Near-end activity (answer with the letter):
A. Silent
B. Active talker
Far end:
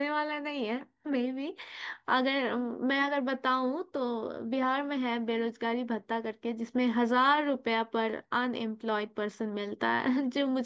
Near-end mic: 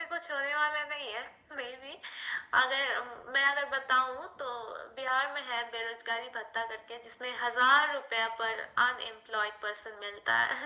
A